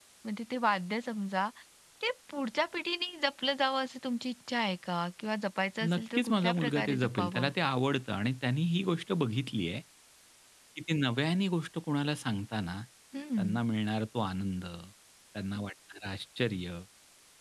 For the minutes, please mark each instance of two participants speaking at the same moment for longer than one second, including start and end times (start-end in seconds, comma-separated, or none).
6.0-7.5